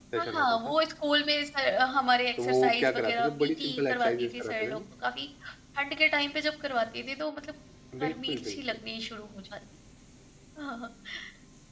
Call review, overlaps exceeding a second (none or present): present